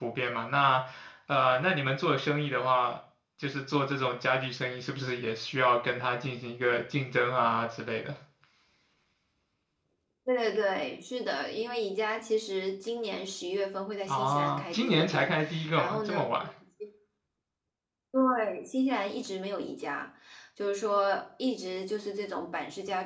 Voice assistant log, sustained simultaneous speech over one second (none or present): present